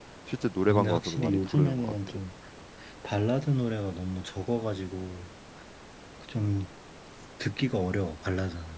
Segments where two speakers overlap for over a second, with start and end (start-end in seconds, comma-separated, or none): 0.7-2.2